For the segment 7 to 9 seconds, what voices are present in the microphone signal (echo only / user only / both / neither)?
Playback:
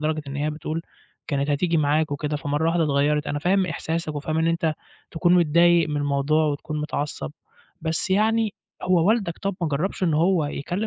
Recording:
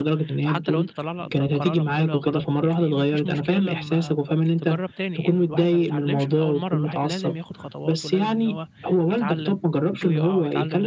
both